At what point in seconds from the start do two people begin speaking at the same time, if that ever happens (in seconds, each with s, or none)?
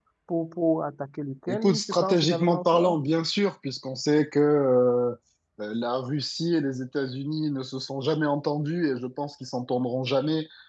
1.5 s